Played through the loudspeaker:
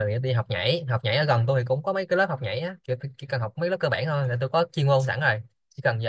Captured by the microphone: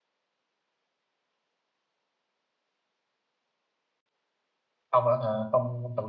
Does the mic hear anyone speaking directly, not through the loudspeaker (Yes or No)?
Yes